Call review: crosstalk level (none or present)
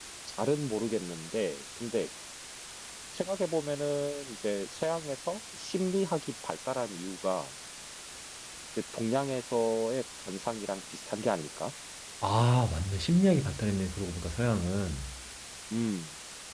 none